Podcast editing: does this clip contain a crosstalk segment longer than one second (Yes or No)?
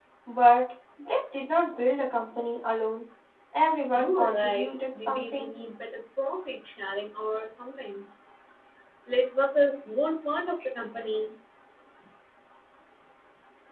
Yes